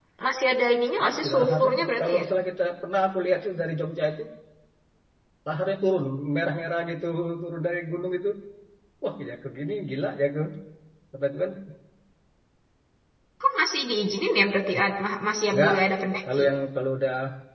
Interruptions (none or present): present